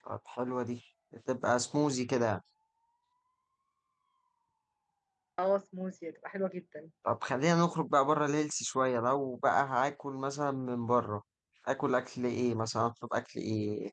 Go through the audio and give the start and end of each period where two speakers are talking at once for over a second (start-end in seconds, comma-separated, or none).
none